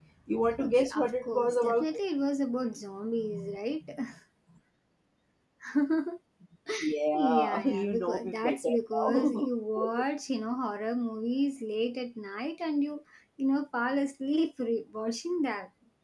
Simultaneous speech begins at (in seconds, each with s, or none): 0.6 s